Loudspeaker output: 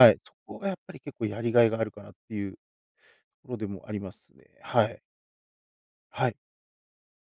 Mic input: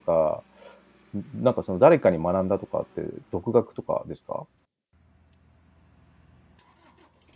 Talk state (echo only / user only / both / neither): user only